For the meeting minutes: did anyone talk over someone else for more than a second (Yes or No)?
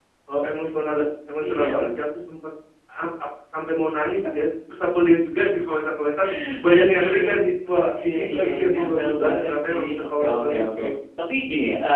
Yes